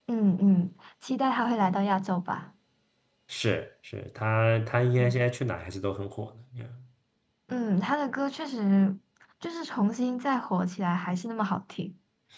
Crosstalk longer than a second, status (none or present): none